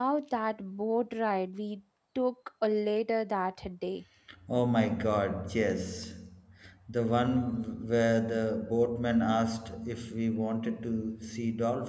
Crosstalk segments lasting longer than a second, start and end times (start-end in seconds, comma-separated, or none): none